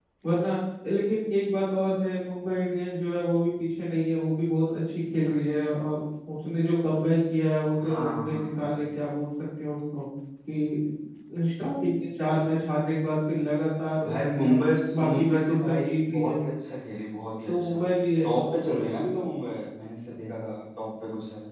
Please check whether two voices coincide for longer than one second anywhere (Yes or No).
Yes